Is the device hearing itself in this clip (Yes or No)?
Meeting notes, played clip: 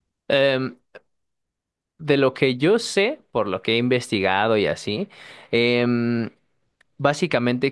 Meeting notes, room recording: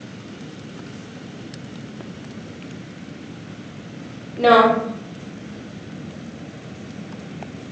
No